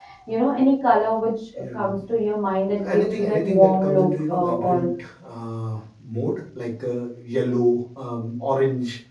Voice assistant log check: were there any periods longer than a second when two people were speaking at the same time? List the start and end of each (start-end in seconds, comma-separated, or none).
2.8-4.9